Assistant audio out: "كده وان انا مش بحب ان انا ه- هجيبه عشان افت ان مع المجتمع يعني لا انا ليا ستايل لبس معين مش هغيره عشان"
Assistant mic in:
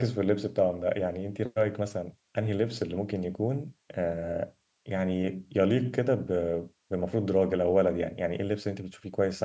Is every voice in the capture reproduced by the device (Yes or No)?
No